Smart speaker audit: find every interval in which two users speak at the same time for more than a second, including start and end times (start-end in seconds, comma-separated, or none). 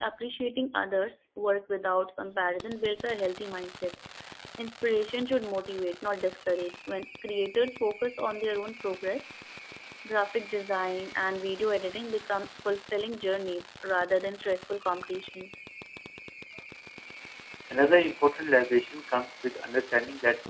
none